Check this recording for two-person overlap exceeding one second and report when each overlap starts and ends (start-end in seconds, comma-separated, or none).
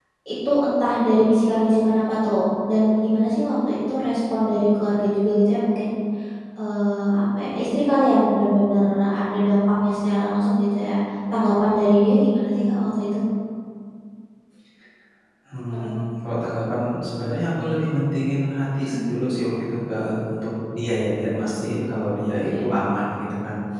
none